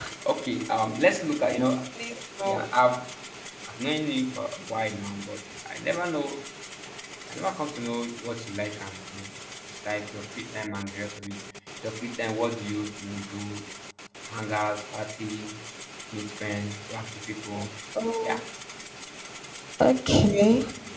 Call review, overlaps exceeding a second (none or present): none